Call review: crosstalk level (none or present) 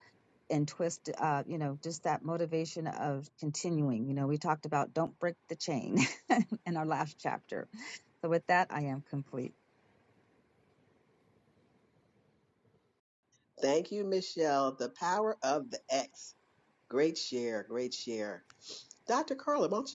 none